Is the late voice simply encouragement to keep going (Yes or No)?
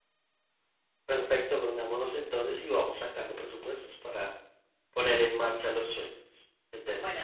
No